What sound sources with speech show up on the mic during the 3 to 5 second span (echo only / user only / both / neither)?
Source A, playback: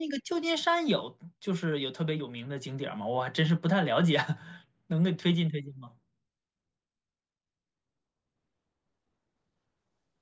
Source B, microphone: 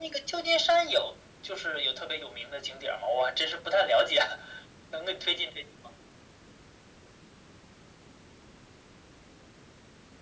echo only